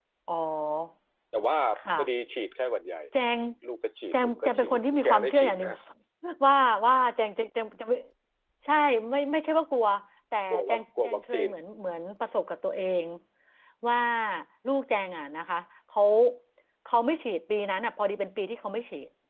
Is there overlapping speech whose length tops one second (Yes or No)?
Yes